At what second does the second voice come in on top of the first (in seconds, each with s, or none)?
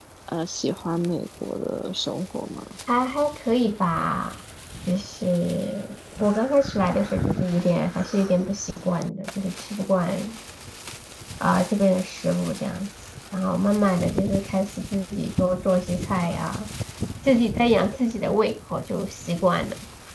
none